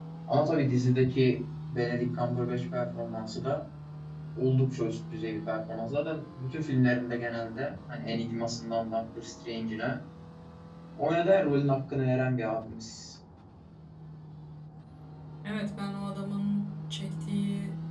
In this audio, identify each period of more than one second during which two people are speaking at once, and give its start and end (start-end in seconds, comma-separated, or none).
none